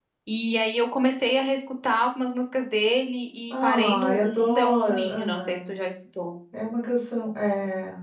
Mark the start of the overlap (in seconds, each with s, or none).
3.5 s